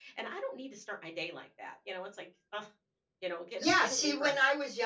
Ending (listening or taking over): taking over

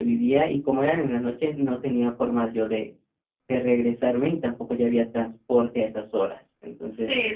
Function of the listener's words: taking over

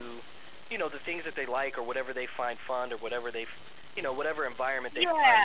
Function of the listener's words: listening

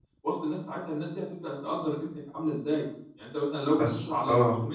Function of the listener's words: listening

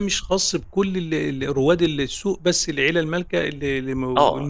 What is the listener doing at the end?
taking over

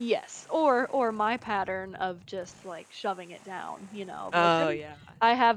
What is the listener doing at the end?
listening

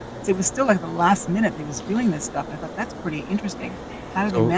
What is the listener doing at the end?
taking over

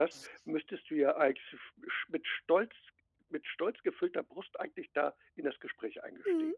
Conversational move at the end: taking over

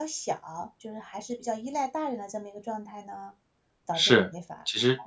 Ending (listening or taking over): taking over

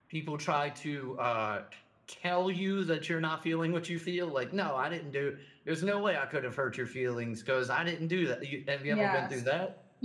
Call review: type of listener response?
taking over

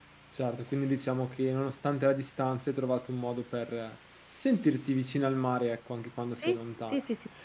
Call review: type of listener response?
taking over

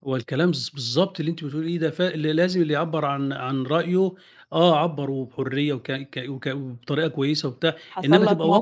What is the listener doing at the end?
taking over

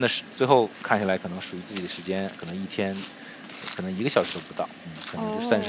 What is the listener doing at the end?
taking over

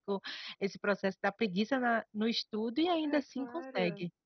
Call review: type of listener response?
taking over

